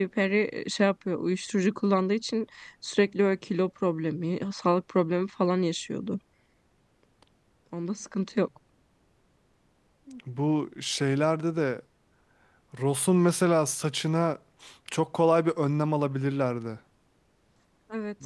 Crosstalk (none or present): none